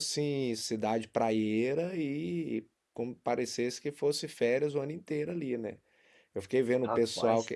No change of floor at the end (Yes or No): Yes